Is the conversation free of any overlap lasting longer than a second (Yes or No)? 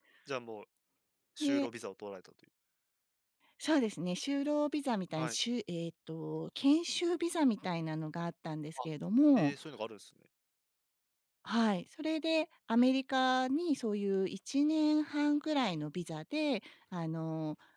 Yes